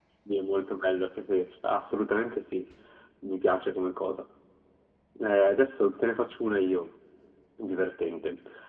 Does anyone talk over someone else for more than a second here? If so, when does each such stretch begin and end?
none

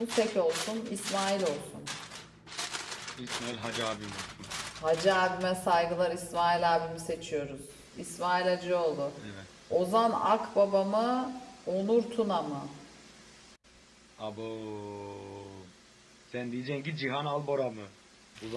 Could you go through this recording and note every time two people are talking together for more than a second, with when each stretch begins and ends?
none

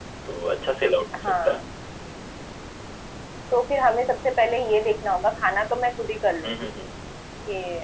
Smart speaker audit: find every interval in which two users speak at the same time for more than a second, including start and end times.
none

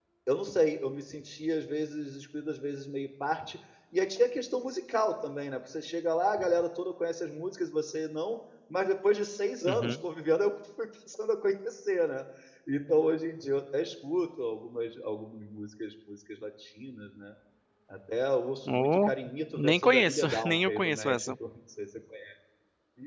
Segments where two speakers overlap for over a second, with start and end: 19.5-21.3

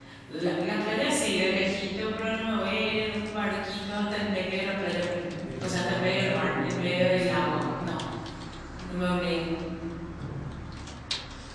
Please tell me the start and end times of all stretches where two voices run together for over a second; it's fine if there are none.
5.6-8.0

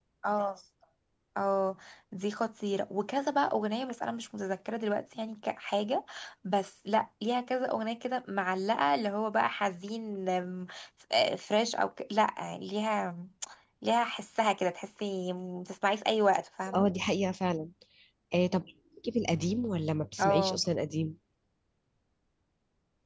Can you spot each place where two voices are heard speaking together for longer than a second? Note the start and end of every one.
none

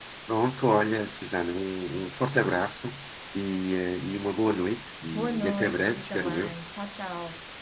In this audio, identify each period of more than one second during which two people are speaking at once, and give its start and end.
5.1-6.5

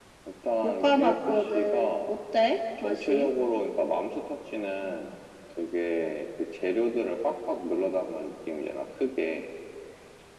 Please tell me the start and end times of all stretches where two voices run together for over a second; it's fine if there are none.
0.6-2.1

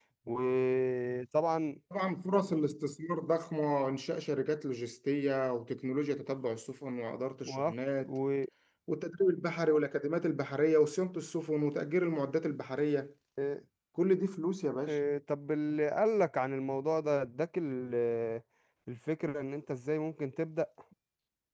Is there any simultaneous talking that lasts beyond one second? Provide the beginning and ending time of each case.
none

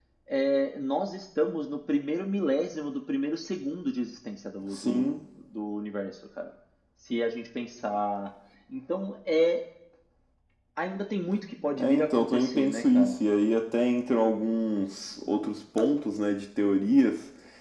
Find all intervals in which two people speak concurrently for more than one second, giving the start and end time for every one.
11.8-13.2

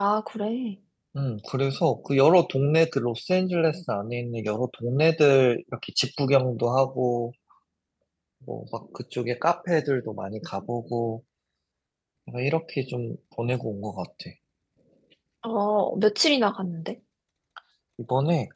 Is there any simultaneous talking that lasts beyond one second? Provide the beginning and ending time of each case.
none

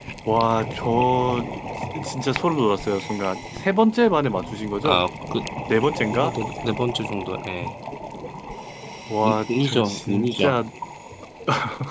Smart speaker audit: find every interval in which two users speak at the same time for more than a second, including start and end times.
9.2-10.6

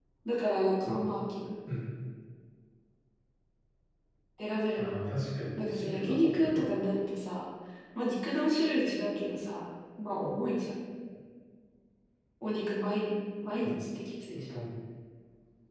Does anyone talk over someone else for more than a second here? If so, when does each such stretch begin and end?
5.6-6.8

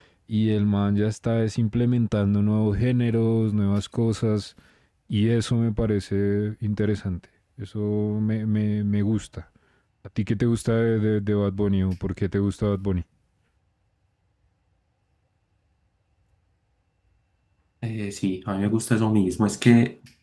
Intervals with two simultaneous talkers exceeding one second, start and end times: none

